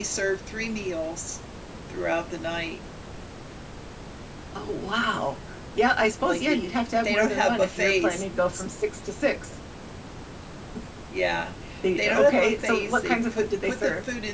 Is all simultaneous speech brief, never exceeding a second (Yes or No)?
No